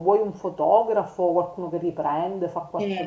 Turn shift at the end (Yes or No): Yes